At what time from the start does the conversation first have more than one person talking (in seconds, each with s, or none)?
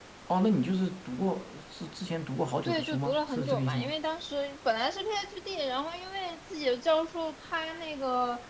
2.6 s